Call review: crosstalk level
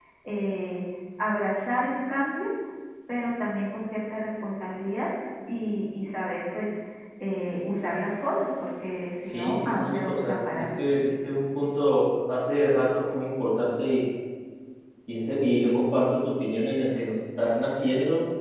present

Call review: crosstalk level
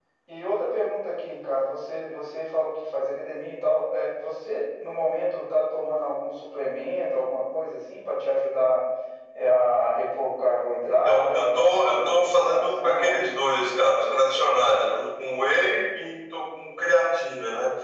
present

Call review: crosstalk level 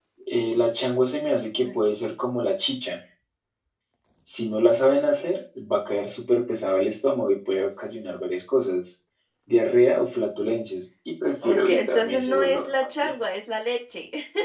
present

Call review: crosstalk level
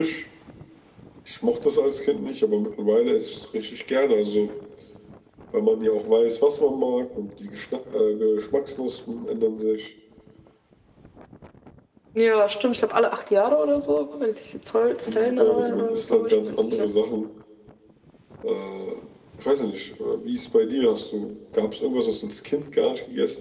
present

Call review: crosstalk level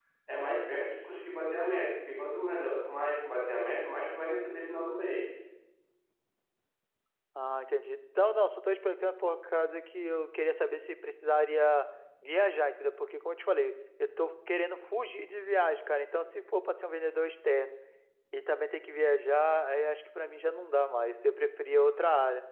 none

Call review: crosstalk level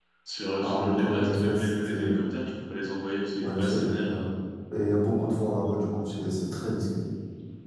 present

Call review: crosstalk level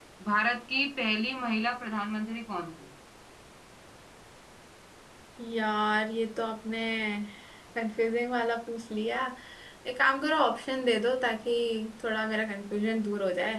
none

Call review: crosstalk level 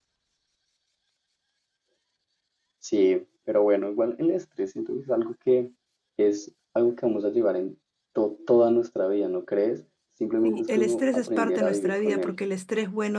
present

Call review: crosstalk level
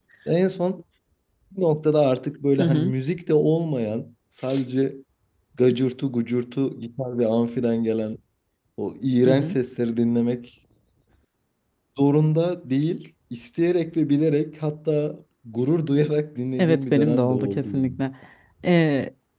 present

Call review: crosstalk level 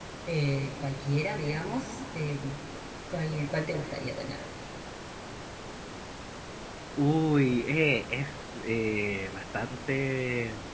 none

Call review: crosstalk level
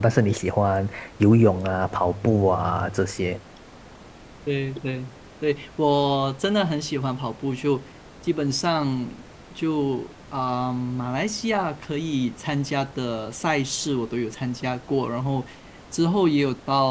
none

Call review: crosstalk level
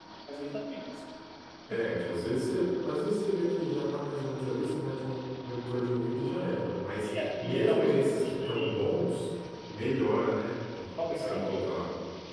present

